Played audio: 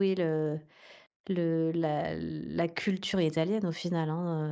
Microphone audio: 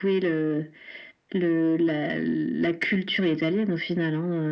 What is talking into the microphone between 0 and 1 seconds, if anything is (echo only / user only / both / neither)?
echo only